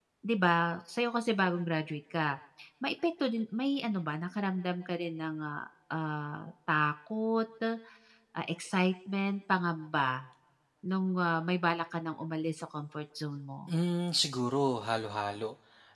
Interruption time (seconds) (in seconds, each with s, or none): none